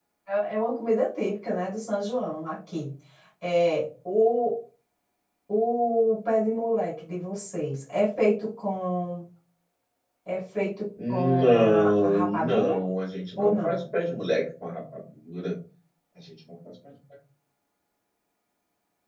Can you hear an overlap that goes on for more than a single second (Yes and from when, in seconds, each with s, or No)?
Yes, from 11.1 s